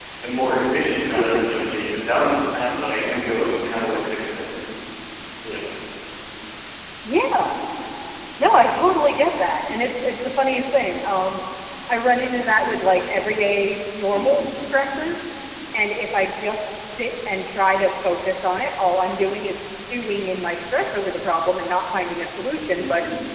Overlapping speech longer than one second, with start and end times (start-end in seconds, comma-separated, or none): none